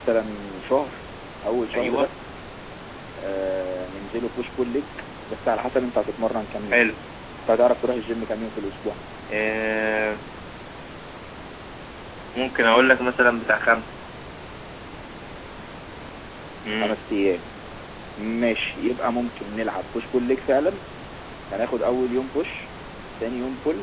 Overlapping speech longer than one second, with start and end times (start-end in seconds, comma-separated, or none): none